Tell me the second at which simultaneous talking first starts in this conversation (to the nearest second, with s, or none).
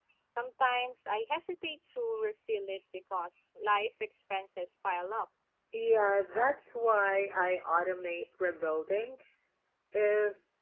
none